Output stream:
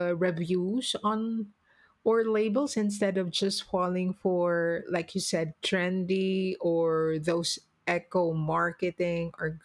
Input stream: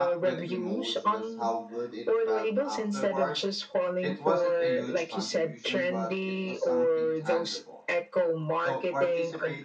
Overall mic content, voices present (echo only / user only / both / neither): both